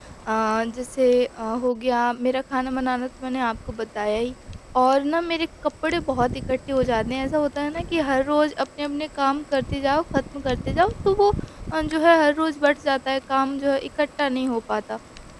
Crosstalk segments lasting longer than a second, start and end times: none

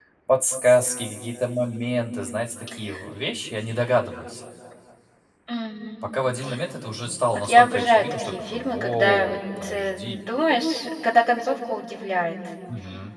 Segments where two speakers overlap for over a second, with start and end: 7.3-10.2

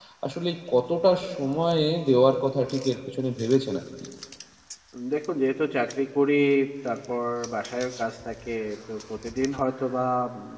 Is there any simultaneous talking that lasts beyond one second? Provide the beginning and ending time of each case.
none

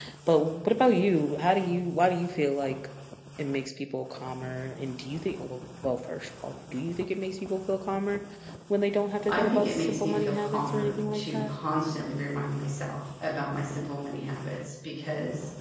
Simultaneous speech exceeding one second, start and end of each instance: 9.2-11.5

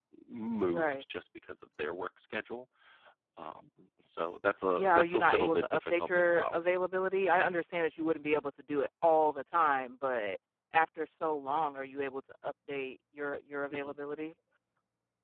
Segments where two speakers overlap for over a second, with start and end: 4.8-6.6

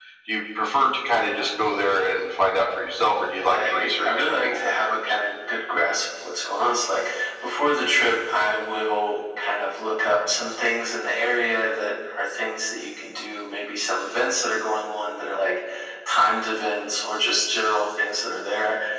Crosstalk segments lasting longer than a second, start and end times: 3.5-5.0

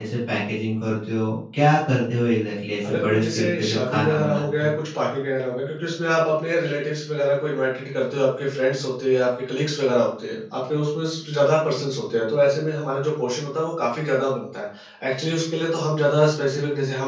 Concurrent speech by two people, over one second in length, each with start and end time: 2.9-4.7

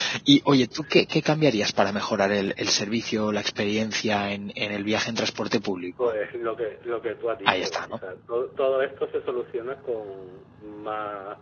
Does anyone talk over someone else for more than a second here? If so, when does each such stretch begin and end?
none

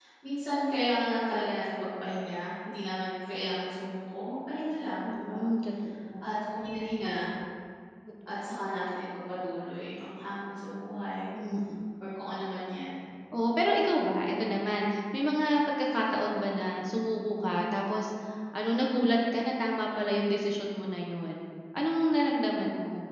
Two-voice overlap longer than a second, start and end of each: none

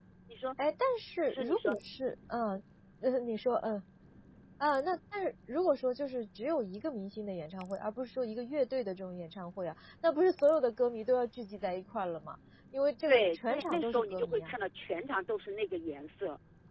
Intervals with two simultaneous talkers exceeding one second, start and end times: 13.1-14.5

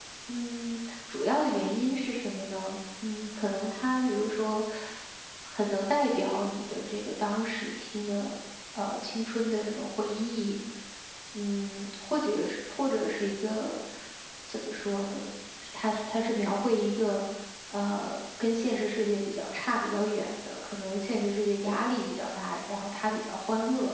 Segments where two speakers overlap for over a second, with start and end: none

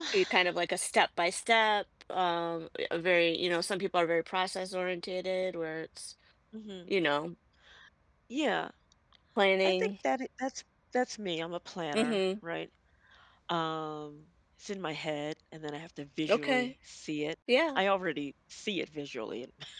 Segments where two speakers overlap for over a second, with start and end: none

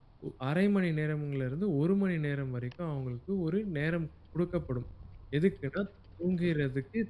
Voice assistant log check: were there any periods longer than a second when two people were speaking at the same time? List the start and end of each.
none

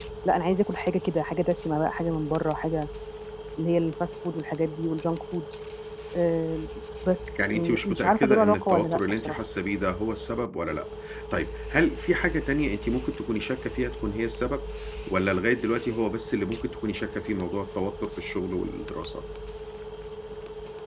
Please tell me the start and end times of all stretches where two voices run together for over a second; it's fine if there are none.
7.5-9.4

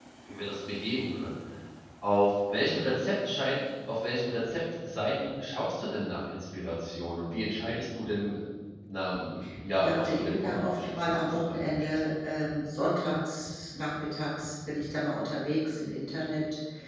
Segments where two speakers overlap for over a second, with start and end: 9.8-11.9

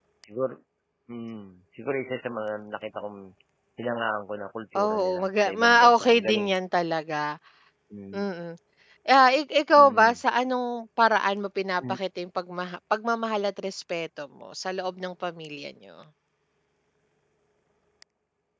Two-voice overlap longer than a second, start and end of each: 4.8-6.5

